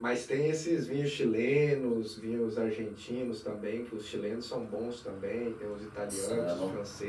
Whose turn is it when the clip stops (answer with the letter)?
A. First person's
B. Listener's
A